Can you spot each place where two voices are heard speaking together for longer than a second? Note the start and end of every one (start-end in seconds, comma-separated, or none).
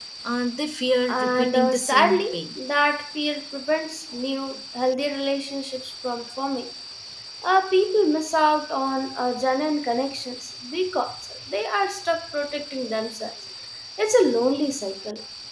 1.1-2.4